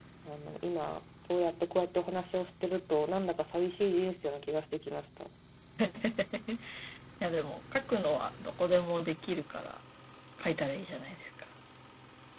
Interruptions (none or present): none